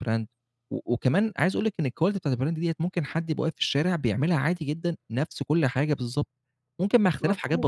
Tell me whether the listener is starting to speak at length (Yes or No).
Yes